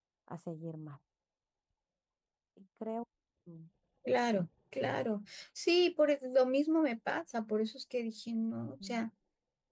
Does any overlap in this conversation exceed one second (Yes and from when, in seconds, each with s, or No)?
No